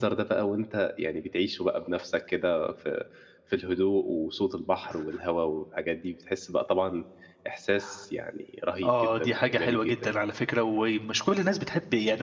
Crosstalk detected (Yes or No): Yes